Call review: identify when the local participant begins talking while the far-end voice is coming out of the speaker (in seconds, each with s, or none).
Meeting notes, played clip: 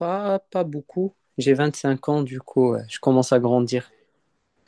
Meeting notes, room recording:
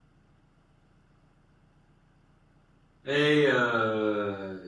3.0 s